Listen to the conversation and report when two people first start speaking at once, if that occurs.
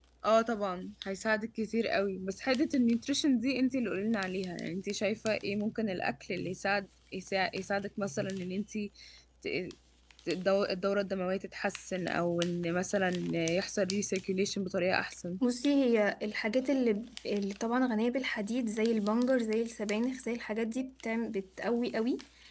none

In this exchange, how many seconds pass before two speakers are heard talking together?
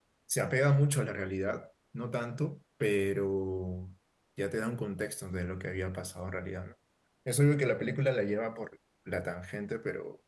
none

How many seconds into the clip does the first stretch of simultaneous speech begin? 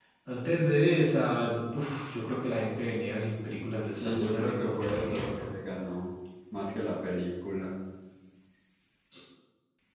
4.0 s

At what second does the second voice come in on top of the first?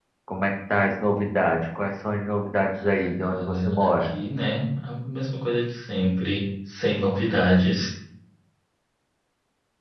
2.7 s

